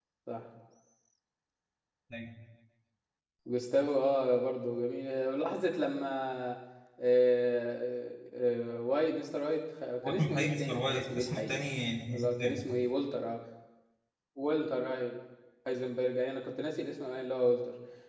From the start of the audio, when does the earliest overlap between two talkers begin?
10.0 s

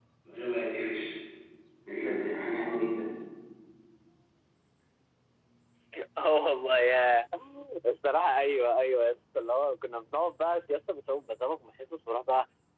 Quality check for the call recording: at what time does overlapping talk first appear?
none

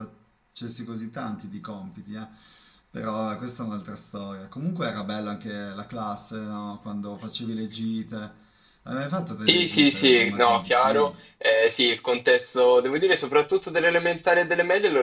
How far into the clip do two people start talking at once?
9.5 s

